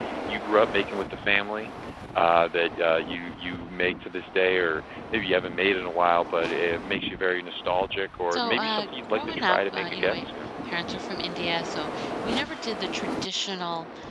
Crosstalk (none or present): present